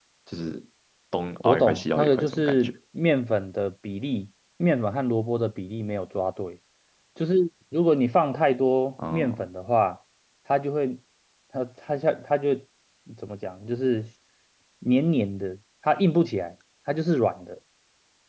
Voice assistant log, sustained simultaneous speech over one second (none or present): present